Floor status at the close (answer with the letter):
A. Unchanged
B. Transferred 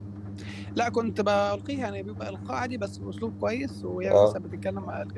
A